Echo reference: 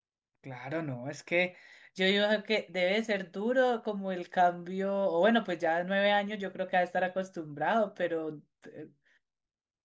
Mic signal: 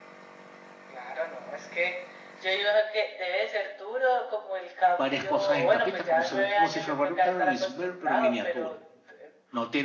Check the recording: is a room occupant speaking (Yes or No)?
Yes